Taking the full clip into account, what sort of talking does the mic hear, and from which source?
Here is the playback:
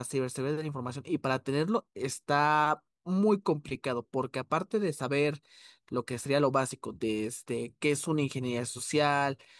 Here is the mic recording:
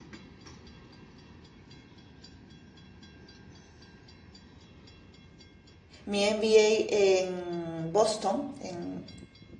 user only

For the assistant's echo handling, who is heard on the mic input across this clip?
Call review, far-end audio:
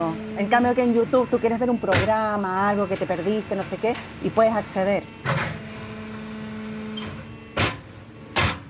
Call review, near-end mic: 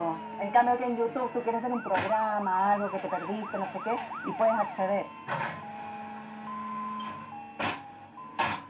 echo only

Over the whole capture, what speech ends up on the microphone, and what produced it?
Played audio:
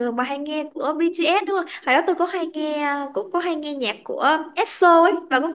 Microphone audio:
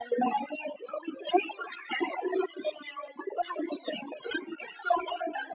echo only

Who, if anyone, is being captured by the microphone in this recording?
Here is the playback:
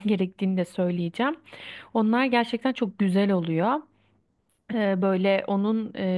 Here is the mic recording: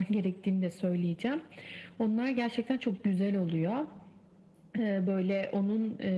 echo only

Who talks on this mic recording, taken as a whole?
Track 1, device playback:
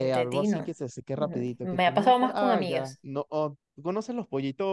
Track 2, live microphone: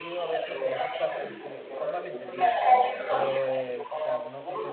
both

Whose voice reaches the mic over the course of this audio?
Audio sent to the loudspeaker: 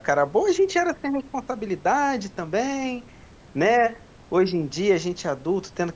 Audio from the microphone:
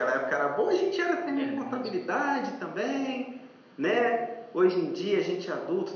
both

